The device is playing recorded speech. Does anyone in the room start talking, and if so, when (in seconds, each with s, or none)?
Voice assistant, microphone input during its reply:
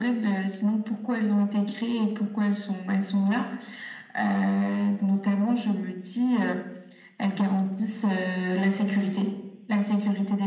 none